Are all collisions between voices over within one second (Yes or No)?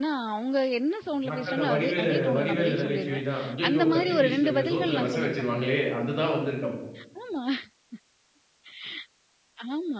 No